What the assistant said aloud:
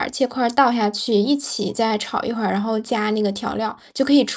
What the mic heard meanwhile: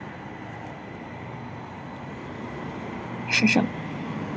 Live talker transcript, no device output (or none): 是什么？